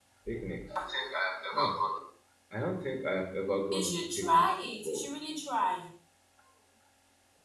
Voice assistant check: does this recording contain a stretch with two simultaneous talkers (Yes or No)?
Yes